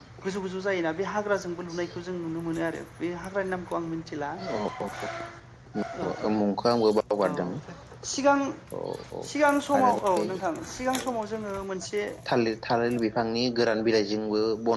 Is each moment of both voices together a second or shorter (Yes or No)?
Yes